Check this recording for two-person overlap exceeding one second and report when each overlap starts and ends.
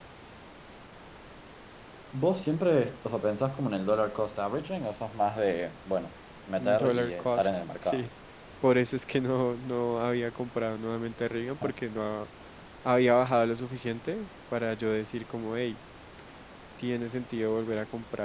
6.6-8.0

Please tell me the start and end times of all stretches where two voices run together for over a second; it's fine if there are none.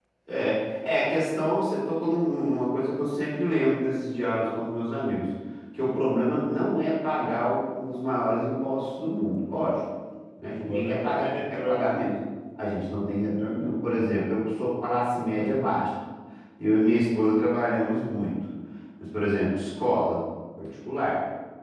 10.5-12.1

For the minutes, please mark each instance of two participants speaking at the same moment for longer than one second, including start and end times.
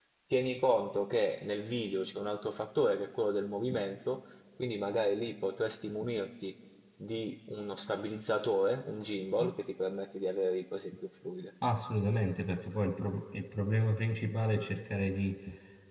none

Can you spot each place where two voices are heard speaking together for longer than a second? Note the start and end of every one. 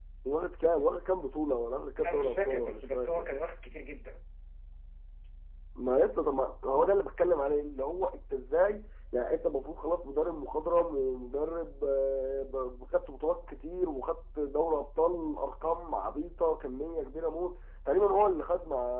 2.0-3.3

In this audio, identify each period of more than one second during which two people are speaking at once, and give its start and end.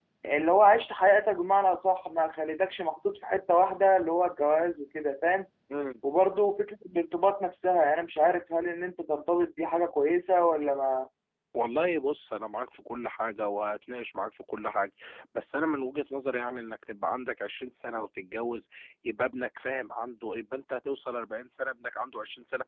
none

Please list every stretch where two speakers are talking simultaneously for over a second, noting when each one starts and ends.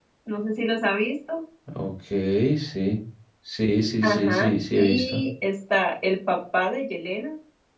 4.0-5.2

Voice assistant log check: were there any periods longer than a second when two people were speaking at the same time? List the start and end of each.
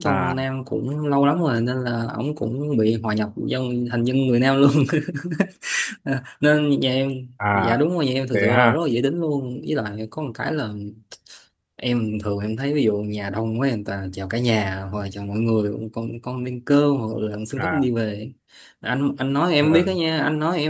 none

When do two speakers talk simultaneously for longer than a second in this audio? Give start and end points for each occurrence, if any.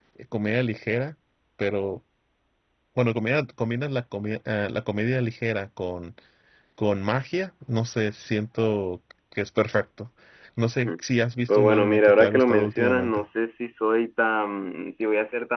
11.5-13.2

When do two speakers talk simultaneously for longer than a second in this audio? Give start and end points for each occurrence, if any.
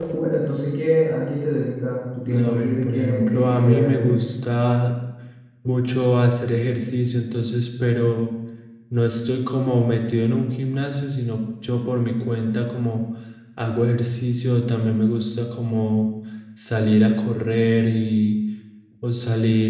2.3-4.4

